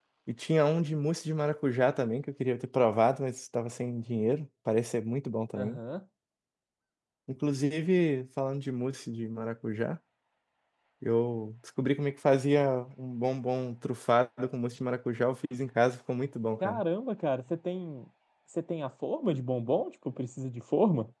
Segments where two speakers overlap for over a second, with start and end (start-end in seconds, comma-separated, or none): none